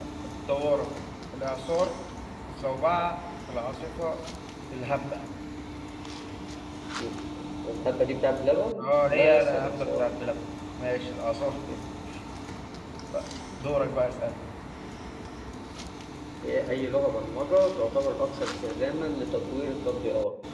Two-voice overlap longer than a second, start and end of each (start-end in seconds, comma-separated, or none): 8.8-10.1